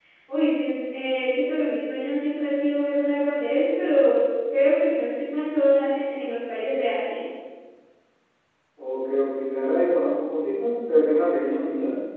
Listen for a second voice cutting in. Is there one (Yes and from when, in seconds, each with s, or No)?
No